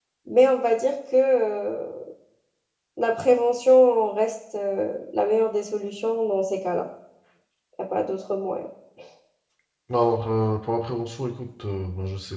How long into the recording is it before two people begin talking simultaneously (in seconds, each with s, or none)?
none